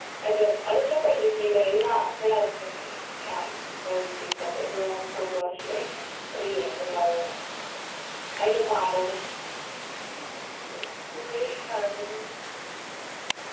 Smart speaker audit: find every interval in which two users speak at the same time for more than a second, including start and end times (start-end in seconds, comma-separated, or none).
none